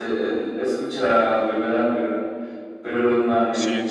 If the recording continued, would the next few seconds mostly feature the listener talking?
No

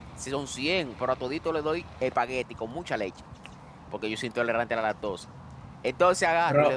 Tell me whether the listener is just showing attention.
No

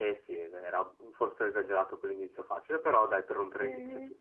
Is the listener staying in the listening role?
No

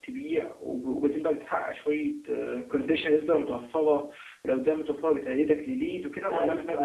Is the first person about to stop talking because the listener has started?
Yes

